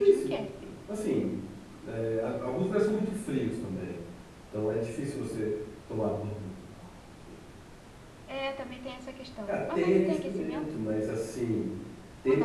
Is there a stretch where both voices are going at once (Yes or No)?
Yes